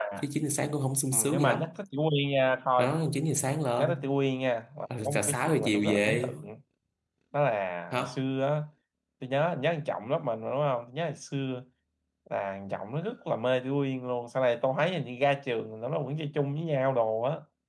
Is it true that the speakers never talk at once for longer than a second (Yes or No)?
No